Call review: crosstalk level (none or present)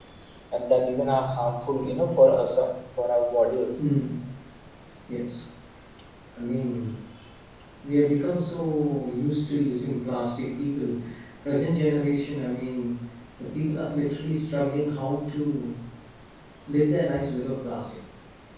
none